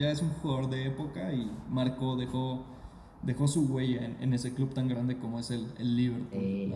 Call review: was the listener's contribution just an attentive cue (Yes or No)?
No